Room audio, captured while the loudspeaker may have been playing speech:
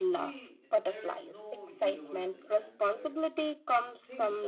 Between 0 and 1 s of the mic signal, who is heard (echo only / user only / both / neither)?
both